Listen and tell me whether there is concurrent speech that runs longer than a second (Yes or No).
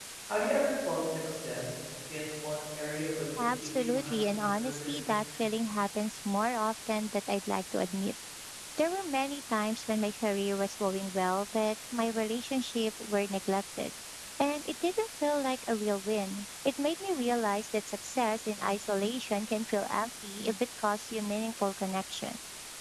Yes